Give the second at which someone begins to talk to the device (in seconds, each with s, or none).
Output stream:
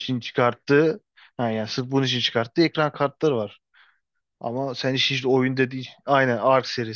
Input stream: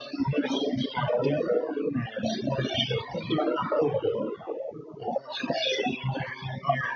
none